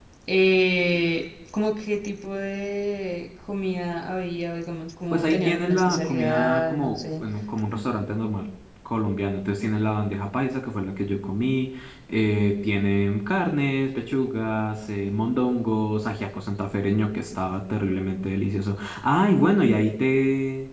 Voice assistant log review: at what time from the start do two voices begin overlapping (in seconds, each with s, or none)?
5.1 s